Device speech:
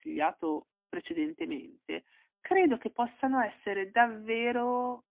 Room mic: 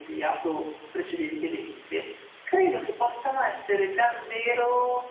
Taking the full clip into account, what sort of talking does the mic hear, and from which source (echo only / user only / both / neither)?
echo only